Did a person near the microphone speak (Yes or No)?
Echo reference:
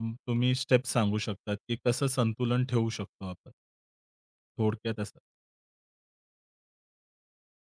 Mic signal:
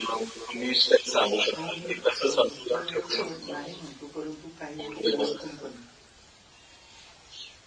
Yes